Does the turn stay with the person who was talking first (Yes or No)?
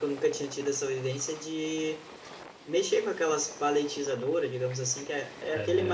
Yes